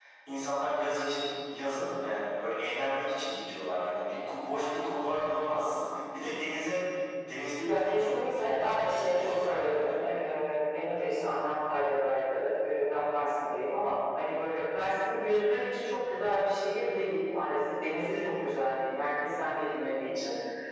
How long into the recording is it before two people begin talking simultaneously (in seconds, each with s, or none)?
7.6 s